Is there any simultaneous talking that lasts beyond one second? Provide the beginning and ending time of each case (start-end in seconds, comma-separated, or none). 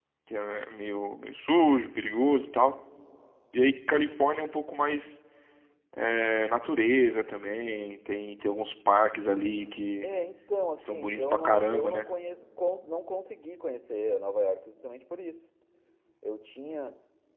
10.8-12.0